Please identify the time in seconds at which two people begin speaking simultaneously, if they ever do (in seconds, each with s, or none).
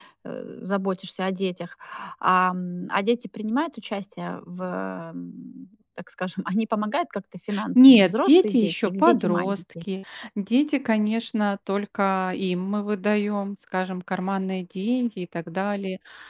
7.8 s